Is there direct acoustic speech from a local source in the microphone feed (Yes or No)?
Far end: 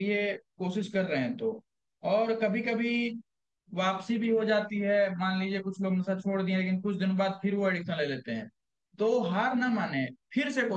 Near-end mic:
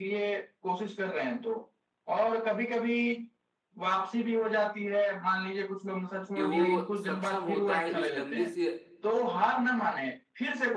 Yes